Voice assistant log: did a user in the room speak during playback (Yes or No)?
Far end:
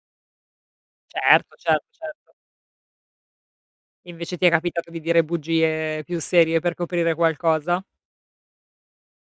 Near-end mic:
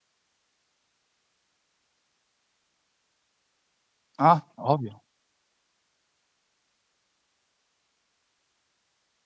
Yes